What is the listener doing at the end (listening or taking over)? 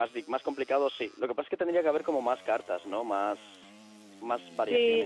taking over